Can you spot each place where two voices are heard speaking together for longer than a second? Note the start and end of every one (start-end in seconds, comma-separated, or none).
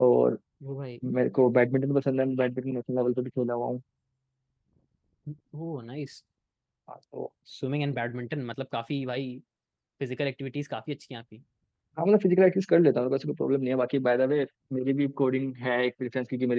none